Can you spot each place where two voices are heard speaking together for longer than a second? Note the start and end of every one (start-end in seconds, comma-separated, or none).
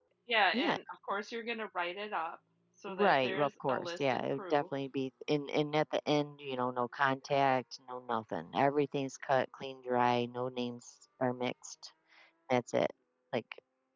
2.9-4.6